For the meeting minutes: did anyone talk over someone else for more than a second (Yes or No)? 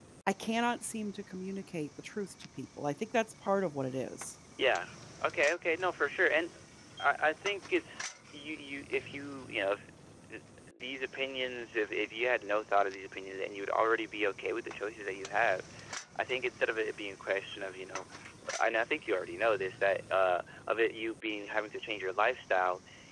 No